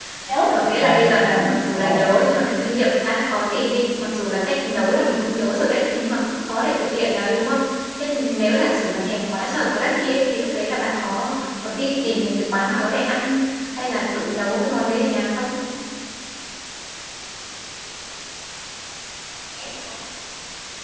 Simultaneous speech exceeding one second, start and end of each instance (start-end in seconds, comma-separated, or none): 0.5-2.0